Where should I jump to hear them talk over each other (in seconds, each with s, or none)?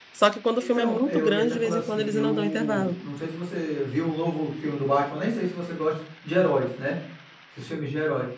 0.6 s